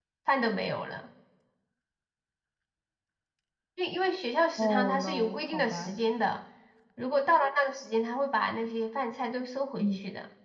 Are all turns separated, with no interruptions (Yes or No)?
No